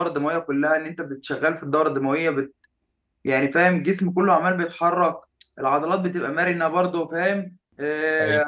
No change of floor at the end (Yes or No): Yes